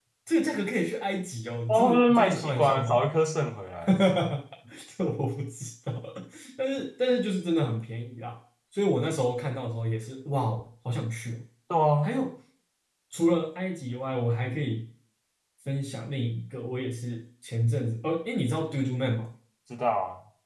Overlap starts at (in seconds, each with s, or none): 1.7 s